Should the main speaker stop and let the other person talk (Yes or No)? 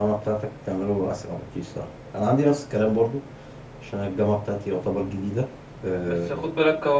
Yes